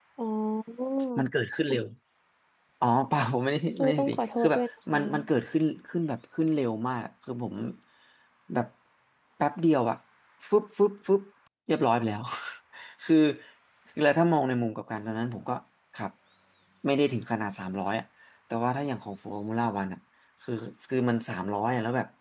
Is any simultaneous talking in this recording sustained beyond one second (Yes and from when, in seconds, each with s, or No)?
Yes, from 3.8 s